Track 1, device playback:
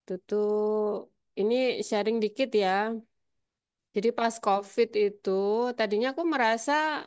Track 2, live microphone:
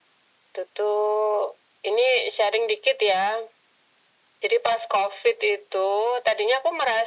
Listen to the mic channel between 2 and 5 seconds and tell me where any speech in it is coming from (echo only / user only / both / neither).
echo only